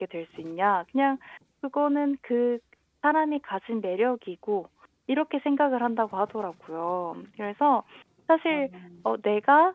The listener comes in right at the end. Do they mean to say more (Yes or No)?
No